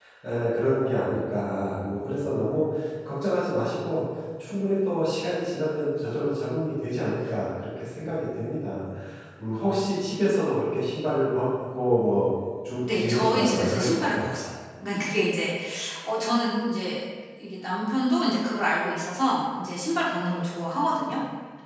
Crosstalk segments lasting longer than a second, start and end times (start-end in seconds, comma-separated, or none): 13.0-14.2